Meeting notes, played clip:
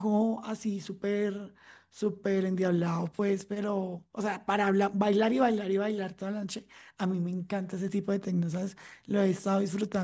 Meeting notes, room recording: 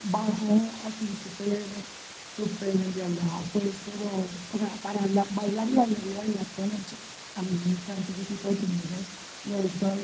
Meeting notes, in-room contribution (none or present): none